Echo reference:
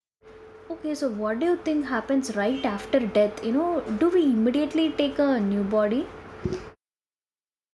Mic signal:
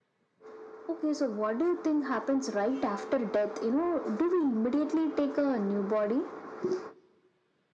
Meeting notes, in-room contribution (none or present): none